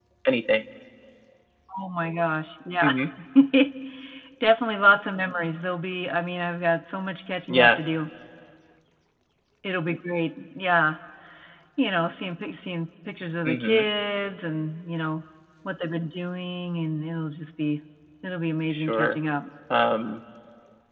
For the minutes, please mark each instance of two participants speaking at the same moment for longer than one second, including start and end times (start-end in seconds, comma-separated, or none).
none